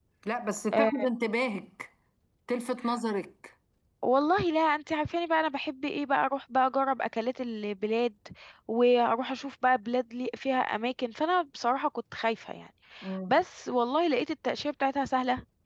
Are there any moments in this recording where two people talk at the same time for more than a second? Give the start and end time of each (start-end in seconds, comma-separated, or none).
none